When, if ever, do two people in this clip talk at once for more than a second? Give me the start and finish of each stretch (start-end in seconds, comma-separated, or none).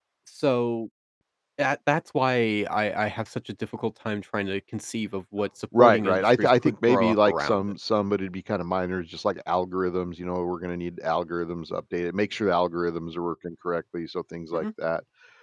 5.8-7.7